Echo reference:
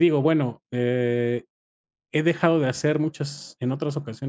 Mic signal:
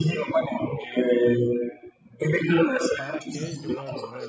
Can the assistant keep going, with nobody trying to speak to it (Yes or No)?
No